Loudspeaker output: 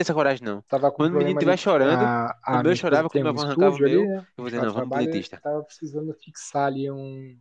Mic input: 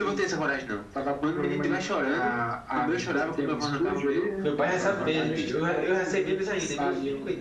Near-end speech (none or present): present